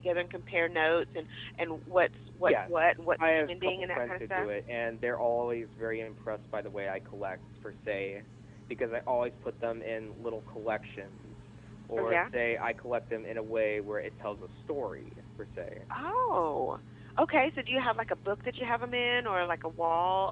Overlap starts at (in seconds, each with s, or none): 2.4 s